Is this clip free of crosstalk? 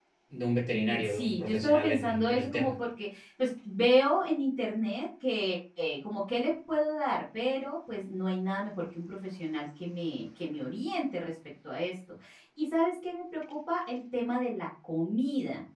No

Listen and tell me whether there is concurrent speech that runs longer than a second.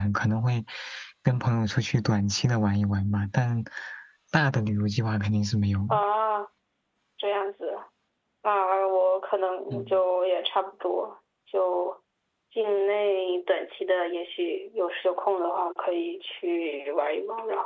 No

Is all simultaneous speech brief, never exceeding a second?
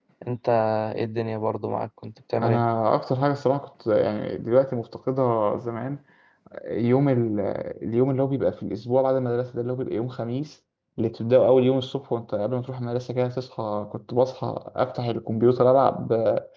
Yes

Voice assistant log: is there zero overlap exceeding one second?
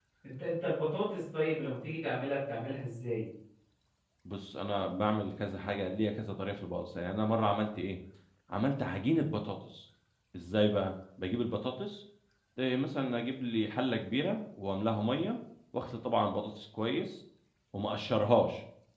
Yes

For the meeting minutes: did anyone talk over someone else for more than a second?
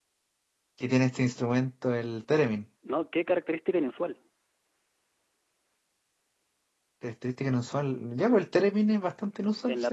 No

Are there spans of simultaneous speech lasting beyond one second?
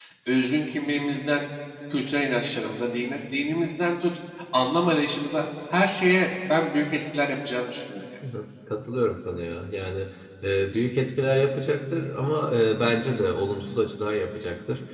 No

